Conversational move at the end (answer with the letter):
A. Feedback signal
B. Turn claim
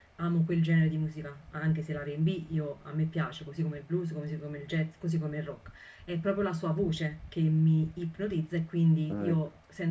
A